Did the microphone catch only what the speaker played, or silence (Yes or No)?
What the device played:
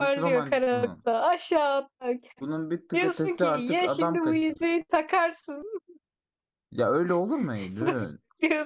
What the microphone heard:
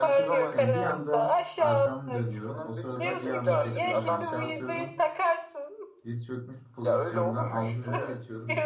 No